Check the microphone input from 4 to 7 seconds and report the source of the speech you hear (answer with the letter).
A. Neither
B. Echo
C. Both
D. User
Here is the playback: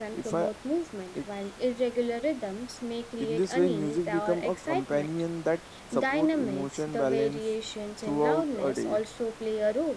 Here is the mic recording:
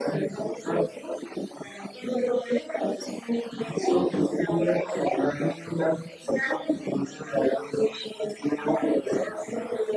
B